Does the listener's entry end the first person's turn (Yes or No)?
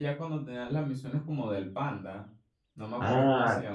Yes